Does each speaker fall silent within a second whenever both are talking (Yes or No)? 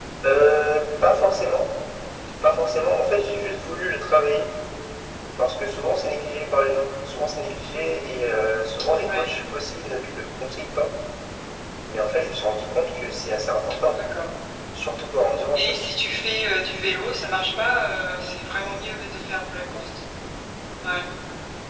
Yes